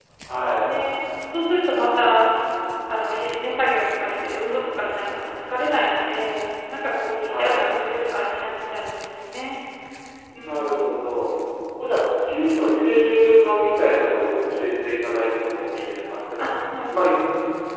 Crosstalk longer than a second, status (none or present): none